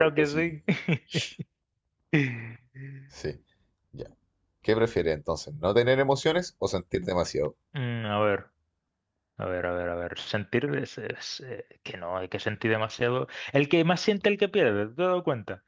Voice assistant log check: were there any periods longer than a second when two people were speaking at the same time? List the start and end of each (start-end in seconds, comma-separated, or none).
none